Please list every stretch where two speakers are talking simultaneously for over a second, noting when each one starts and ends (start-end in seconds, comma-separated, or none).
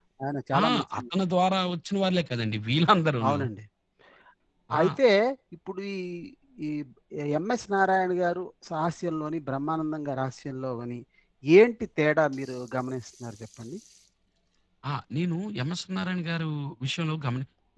none